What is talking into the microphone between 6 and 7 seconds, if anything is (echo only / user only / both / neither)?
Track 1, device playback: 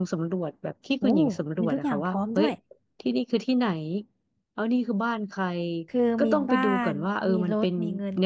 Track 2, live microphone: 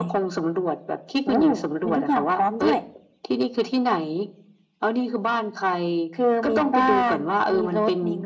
echo only